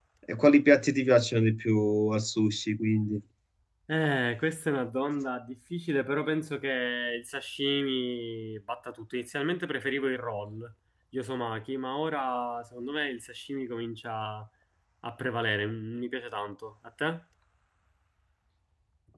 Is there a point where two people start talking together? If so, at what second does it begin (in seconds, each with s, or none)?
none